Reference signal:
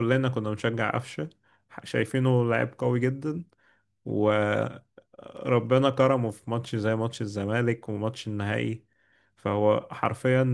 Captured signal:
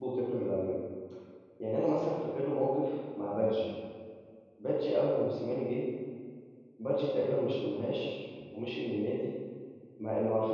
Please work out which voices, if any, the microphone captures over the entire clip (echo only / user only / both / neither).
user only